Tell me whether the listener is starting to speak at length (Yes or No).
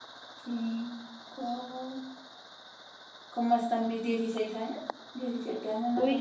Yes